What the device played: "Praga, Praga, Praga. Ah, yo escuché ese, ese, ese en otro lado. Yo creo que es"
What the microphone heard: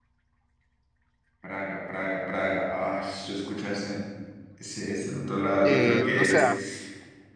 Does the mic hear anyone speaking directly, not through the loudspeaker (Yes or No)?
Yes